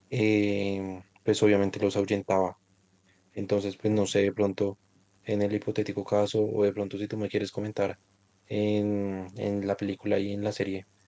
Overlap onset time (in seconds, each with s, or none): none